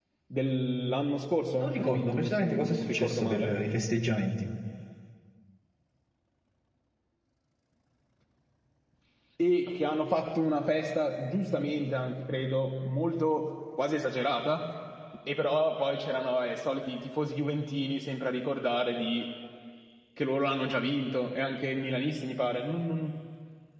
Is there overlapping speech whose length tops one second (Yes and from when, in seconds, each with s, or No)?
Yes, from 1.6 s